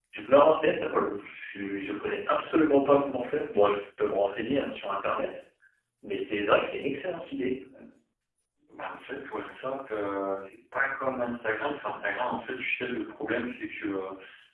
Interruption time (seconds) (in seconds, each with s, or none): none